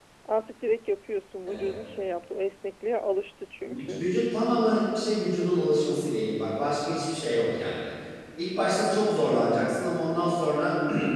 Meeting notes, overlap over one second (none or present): none